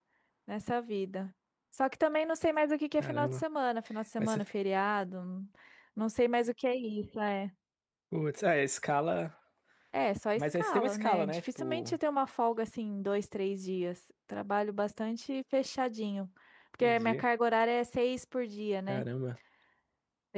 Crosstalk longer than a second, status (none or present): present